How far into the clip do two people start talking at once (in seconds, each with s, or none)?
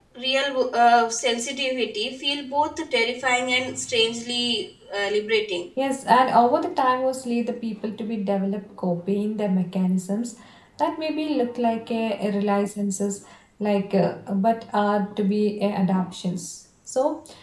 none